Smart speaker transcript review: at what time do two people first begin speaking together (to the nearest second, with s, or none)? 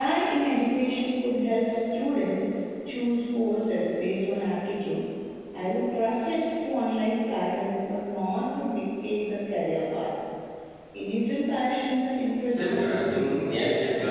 12 s